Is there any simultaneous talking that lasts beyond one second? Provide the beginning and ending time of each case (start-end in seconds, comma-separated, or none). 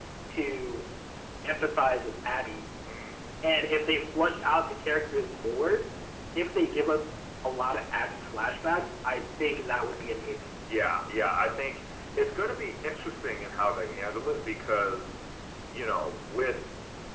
none